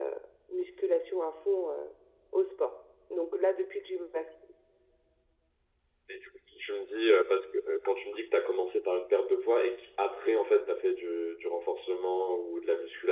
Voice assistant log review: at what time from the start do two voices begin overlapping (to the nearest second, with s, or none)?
none